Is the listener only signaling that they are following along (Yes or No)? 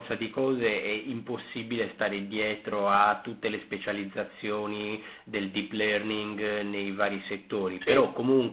Yes